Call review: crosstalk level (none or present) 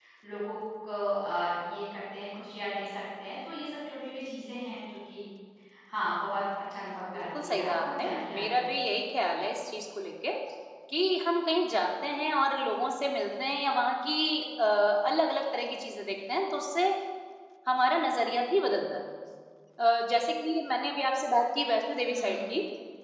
present